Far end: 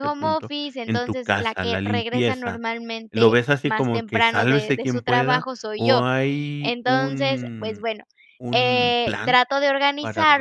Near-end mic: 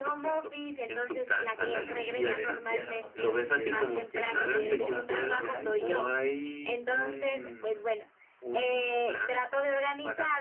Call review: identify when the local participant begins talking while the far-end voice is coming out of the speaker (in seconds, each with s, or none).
1.5 s